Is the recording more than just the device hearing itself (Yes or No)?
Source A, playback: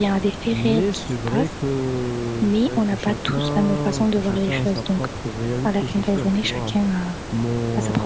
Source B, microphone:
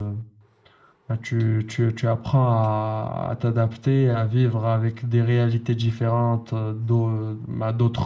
Yes